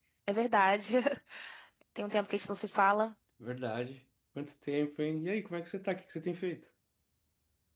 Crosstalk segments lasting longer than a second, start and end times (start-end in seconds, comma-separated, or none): none